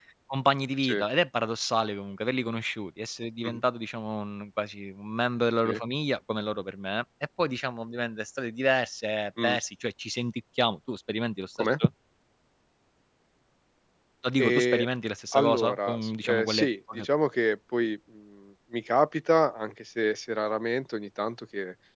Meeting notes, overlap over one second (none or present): present